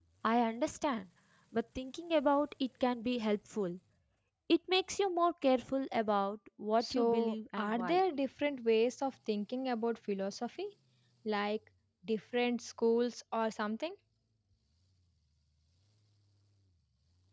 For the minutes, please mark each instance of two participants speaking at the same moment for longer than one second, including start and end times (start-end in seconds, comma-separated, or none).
6.8-8.0